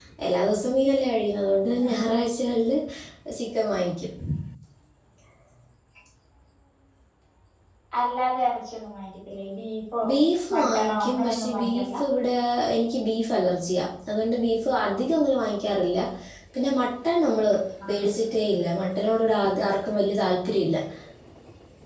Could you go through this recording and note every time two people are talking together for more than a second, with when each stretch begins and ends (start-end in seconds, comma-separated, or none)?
10.5-11.9